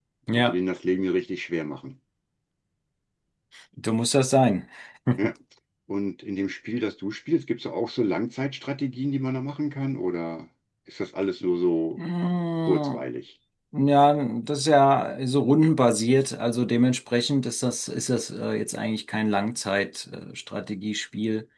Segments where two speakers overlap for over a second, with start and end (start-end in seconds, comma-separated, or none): none